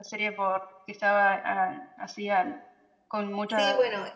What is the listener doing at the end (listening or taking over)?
taking over